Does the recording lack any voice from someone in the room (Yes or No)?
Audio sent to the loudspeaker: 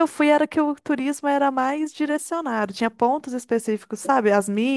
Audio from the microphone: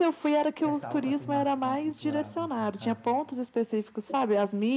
No